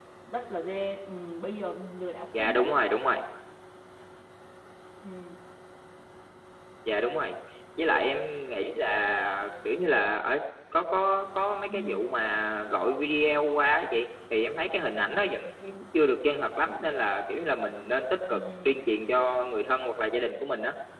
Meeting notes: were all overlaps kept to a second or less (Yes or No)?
Yes